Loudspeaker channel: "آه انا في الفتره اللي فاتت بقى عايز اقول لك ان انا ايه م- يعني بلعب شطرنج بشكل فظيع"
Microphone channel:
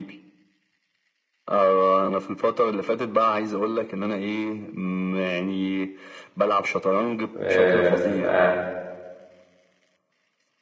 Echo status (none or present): present